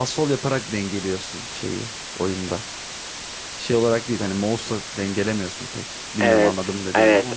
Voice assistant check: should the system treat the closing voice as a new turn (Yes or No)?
Yes